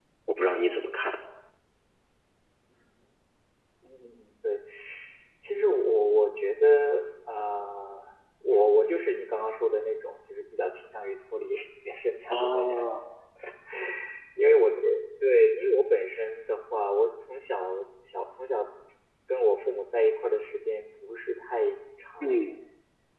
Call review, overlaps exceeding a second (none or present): none